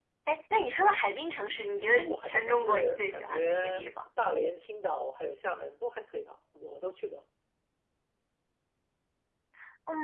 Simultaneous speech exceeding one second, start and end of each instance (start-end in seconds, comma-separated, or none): 1.8-3.8